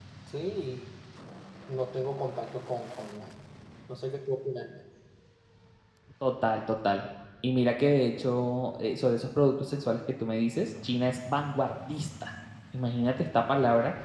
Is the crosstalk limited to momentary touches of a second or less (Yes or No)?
Yes